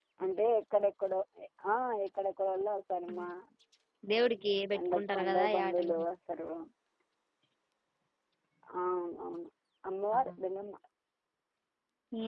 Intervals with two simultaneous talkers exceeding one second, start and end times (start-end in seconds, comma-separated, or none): 4.7-6.0